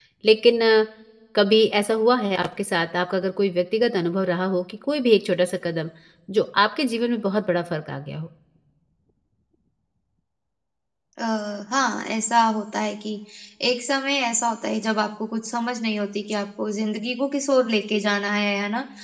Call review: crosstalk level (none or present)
none